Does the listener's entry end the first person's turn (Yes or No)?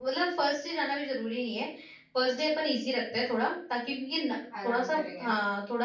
No